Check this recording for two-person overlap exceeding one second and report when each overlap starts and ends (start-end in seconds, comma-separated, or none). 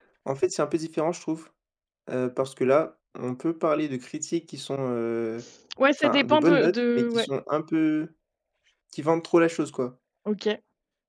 6.0-7.3